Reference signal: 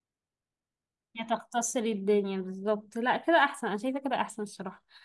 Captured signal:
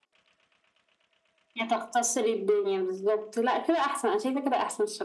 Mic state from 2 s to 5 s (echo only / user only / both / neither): echo only